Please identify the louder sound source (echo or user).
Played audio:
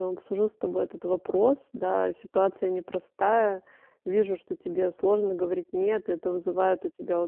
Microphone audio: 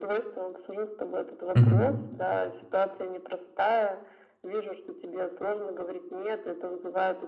user